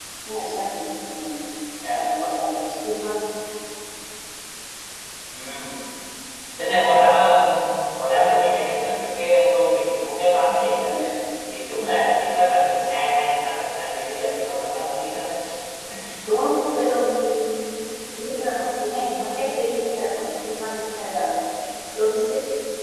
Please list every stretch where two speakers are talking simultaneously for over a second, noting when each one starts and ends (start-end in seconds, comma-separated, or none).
none